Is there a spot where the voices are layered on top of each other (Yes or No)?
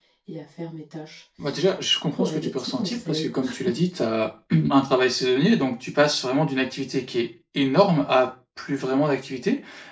Yes